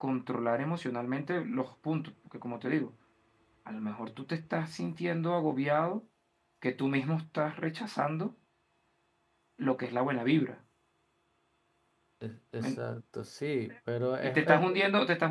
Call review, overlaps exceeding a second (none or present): none